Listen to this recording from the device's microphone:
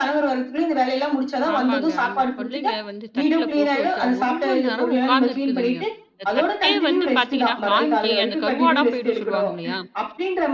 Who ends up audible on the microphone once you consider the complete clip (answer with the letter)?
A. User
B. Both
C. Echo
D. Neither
B